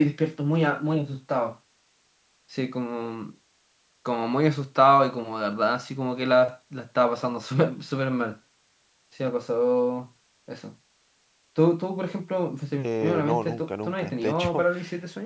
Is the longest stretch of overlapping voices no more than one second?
No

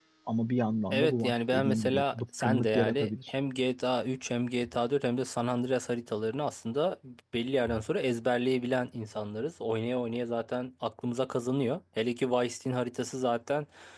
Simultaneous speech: Yes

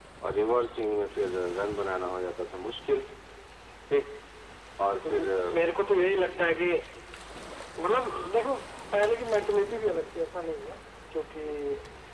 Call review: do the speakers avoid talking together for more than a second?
Yes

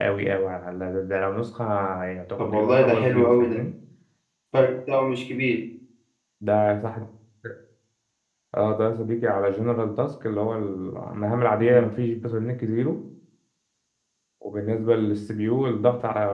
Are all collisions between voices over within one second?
No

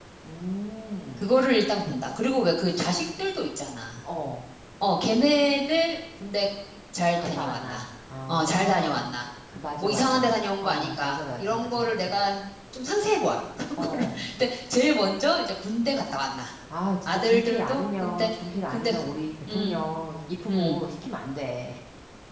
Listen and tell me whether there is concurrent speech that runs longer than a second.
Yes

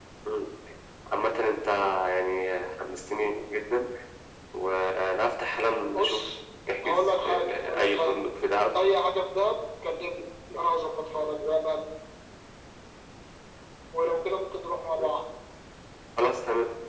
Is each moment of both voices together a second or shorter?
No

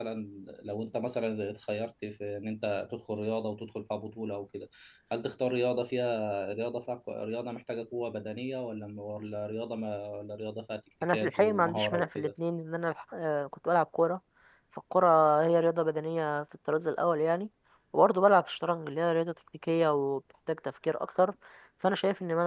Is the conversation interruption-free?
No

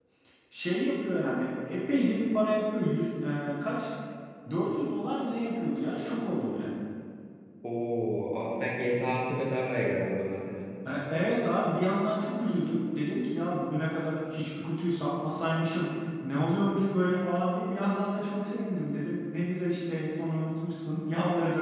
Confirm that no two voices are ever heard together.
Yes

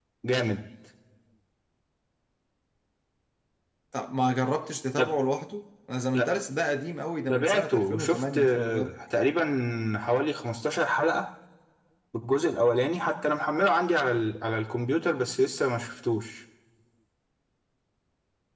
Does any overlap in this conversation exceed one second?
Yes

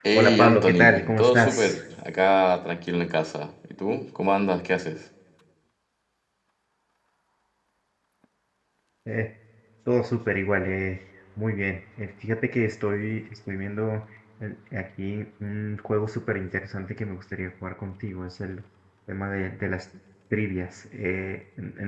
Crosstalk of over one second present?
Yes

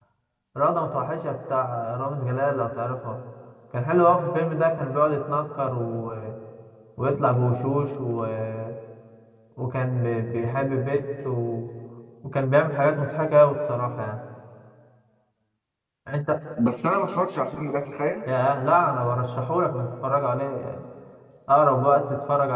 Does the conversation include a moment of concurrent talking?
No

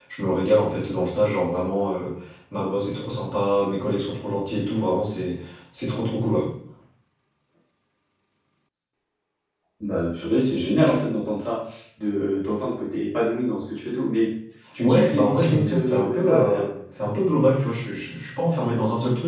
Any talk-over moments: Yes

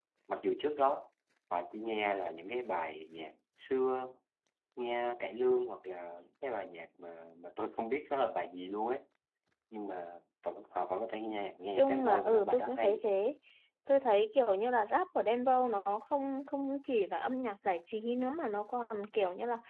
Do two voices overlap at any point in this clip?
Yes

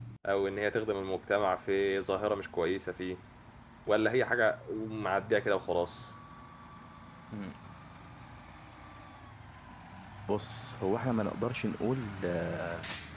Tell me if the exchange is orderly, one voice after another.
Yes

